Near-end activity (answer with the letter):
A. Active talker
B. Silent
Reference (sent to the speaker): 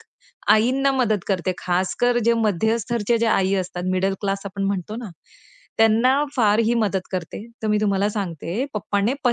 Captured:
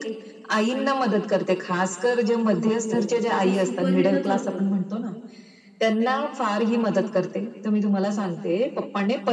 A